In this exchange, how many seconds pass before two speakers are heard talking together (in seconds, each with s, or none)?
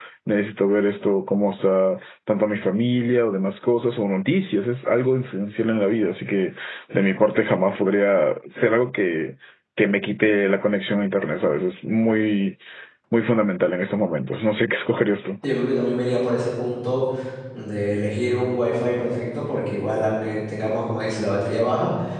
none